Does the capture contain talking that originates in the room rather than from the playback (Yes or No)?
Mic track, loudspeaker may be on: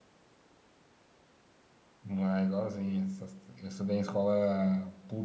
Yes